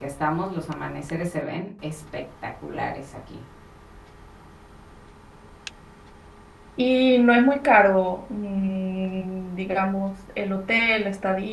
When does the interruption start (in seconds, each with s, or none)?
none